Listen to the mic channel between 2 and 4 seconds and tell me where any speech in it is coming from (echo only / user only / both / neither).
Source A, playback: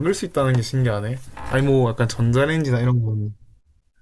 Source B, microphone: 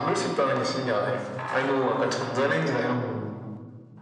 echo only